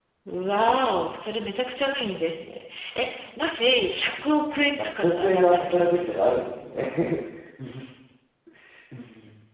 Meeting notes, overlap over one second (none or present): present